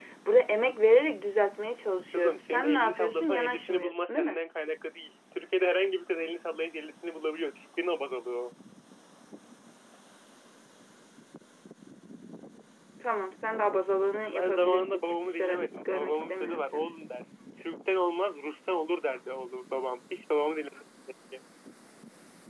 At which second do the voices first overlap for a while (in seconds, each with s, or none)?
2.1 s